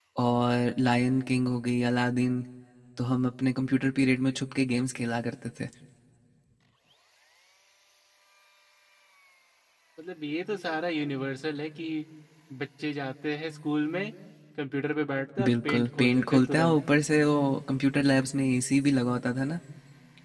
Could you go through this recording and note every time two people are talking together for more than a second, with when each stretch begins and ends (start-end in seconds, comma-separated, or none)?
15.4-16.8